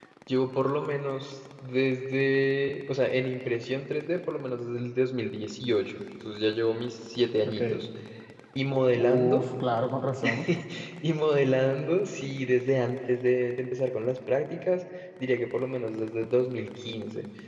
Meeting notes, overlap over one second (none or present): none